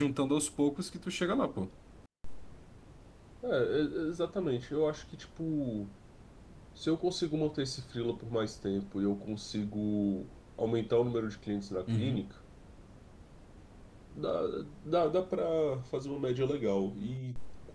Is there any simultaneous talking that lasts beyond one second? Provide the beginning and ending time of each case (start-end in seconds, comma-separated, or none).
none